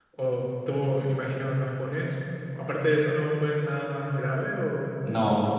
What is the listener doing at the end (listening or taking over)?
taking over